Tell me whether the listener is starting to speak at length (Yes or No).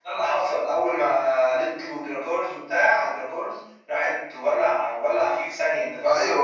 Yes